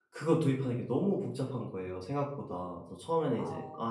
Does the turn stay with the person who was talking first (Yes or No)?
Yes